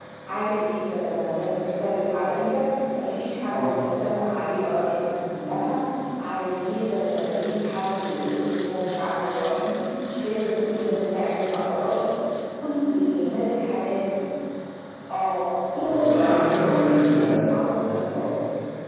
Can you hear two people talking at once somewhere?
Yes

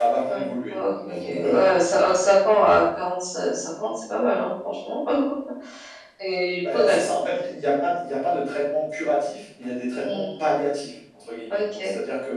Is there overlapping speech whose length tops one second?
Yes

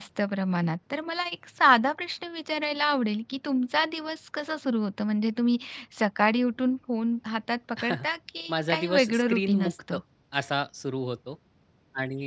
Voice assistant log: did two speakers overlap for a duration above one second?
Yes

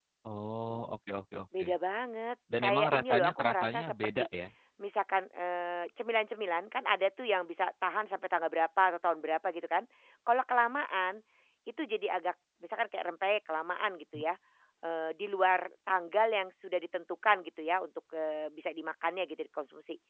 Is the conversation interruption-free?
No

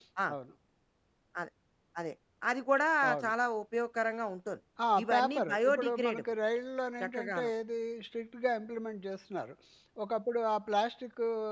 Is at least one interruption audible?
Yes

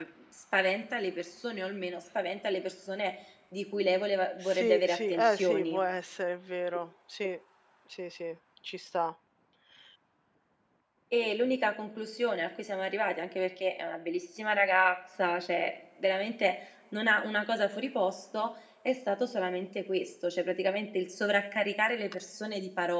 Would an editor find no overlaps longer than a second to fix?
No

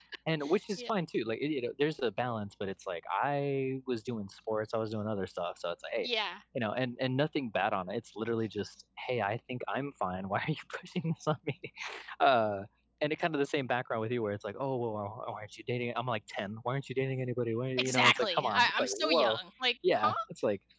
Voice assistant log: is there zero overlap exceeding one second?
No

